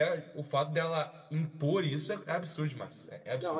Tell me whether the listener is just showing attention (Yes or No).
No